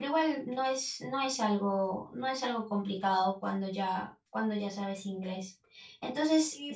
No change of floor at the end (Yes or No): No